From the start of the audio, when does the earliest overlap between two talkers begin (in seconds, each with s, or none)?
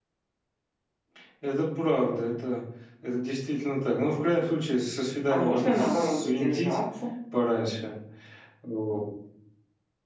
5.3 s